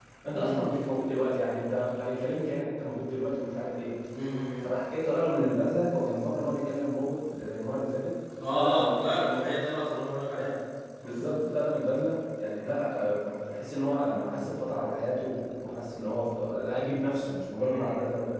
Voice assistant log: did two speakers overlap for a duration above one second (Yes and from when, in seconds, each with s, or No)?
No